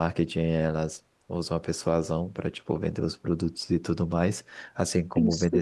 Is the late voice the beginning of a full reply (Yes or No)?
No